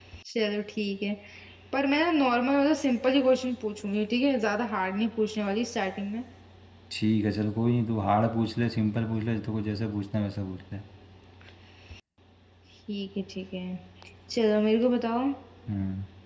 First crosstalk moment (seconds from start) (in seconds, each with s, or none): none